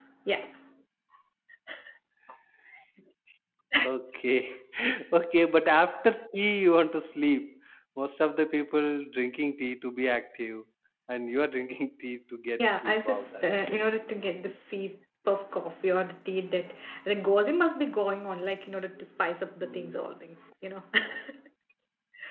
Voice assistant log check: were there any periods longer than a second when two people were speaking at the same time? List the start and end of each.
12.6-13.8

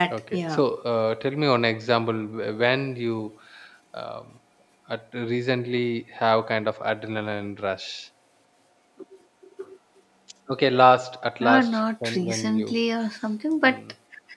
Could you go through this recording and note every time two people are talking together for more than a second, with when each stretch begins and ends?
11.4-12.8

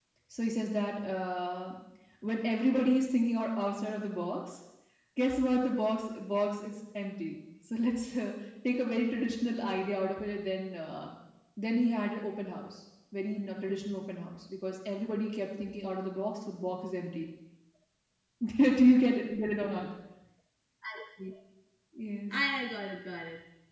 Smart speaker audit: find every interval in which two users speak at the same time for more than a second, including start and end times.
none

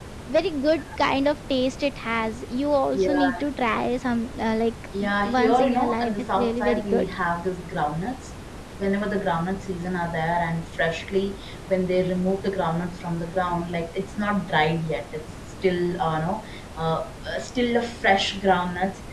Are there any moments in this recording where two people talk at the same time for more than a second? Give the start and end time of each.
5.0-7.1

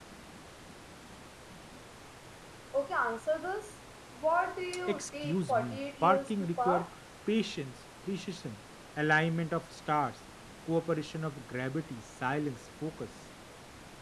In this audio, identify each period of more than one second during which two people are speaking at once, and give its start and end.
4.9-6.9

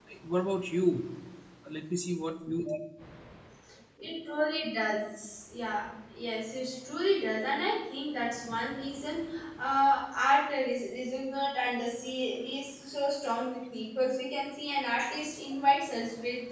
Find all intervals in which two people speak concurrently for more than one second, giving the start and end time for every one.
none

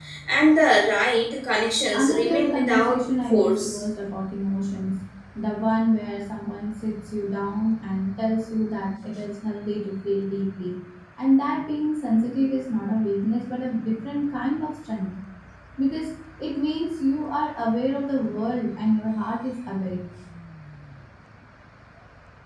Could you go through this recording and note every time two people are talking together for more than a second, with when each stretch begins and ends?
1.9-3.8

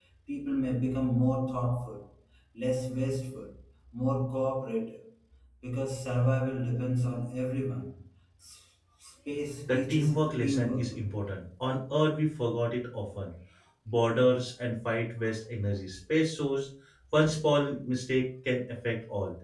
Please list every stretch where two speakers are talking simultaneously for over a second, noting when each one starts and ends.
9.7-11.0

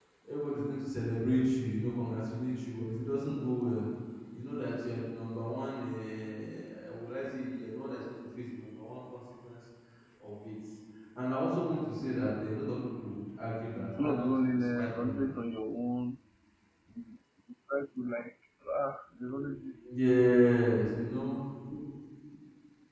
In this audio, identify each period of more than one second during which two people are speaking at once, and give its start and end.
14.0-15.3

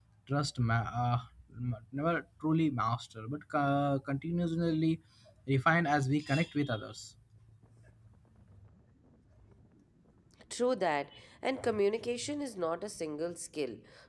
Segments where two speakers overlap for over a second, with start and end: none

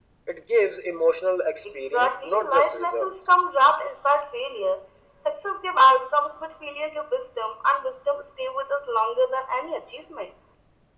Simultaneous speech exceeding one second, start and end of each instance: 1.9-3.1

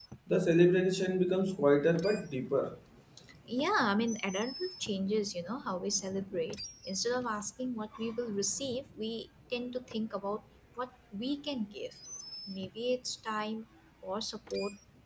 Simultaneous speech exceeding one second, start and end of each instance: none

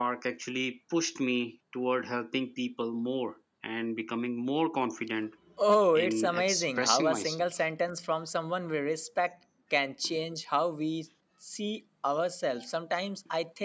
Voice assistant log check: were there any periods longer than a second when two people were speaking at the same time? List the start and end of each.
5.9-7.5

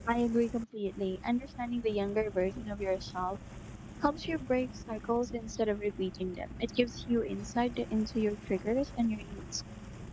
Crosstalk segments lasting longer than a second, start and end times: none

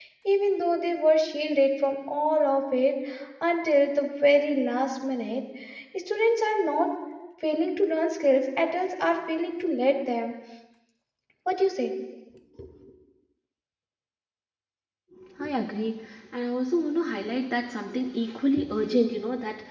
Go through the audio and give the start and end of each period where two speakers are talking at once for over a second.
none

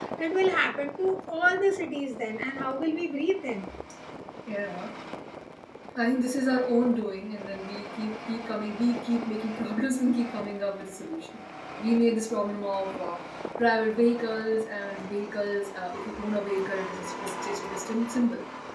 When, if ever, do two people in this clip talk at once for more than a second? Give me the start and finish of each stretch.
none

